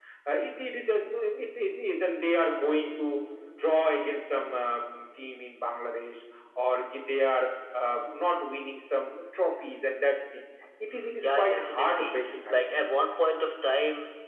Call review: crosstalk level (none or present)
present